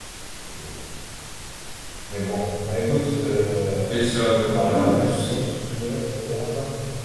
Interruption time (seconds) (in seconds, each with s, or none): 3.9 s